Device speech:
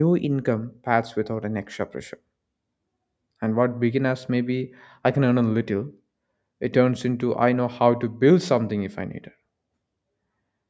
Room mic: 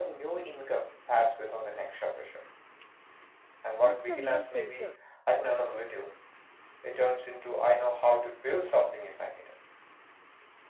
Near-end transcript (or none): That's the real filter.